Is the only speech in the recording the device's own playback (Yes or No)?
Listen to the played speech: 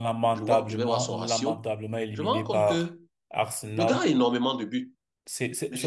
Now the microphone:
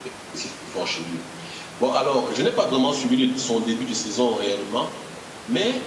No